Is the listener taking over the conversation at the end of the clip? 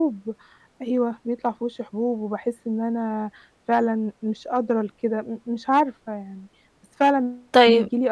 Yes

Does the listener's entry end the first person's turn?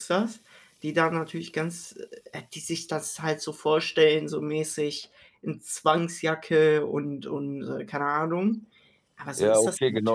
Yes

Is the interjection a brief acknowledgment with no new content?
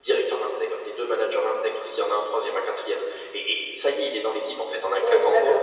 No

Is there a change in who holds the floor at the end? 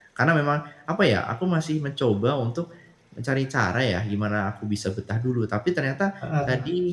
No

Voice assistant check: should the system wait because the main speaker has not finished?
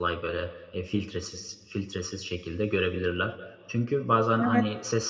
Yes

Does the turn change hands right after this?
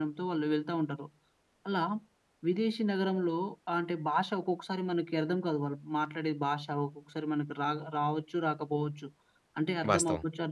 No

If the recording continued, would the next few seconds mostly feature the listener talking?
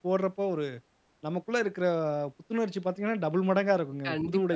Yes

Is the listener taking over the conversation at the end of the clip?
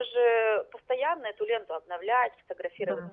No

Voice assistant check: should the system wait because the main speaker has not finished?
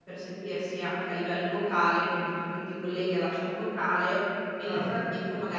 Yes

